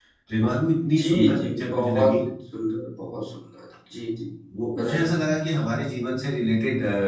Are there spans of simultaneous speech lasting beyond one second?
Yes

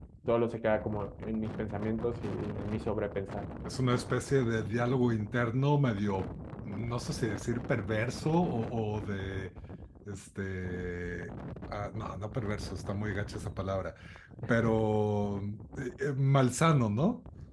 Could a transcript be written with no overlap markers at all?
Yes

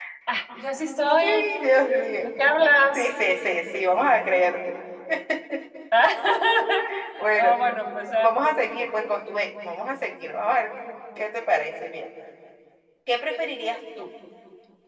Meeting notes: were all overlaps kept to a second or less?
Yes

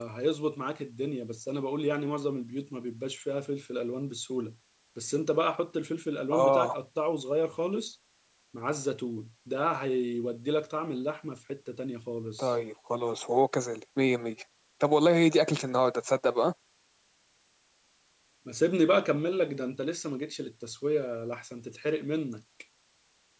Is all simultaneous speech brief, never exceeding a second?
Yes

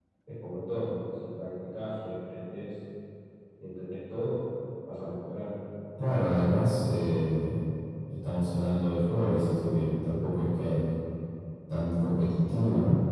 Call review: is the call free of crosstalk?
Yes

